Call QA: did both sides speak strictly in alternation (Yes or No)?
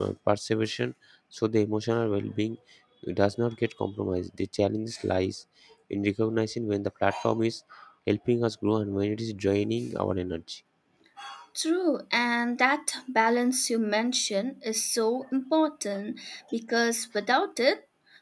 Yes